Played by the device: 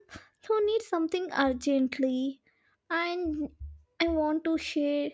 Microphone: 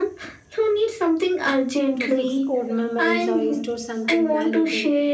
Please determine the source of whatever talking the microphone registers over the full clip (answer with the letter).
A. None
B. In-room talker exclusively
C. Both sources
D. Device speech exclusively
C